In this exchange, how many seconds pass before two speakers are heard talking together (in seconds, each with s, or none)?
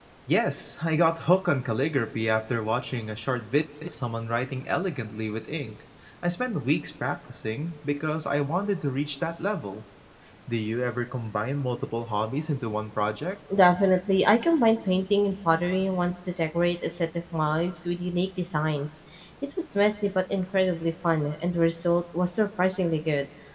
none